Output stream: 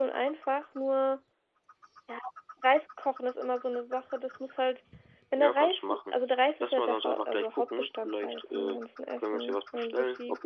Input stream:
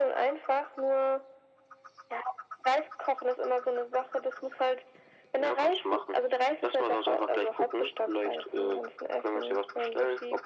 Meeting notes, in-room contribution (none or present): none